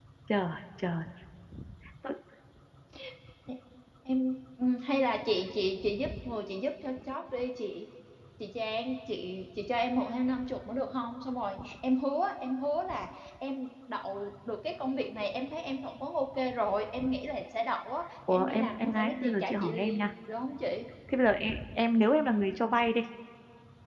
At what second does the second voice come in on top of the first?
18.3 s

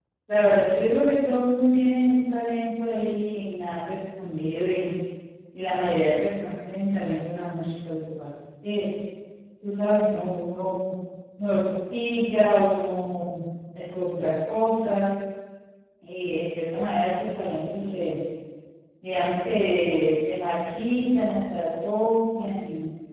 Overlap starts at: none

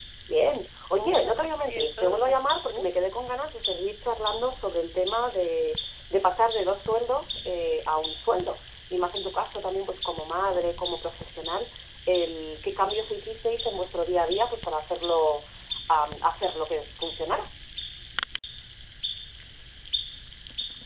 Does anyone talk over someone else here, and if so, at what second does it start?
1.0 s

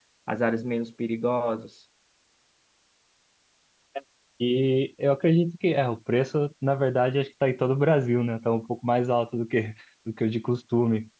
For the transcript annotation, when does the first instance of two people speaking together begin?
none

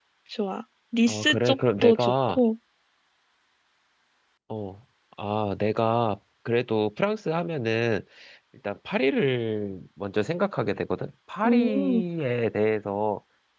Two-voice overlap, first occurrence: 1.1 s

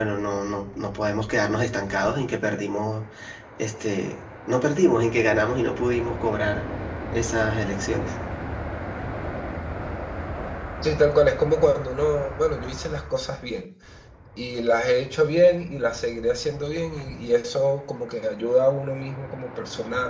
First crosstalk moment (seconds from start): none

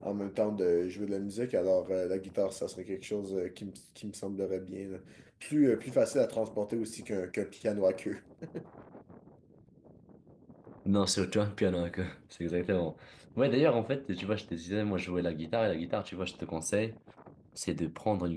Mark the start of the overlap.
none

